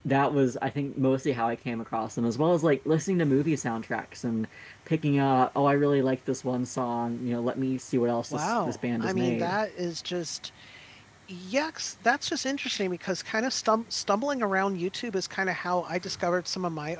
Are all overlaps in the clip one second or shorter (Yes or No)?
No